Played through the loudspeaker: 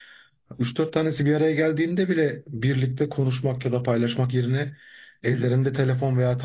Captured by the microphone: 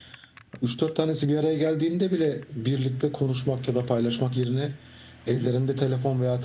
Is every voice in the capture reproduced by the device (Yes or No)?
Yes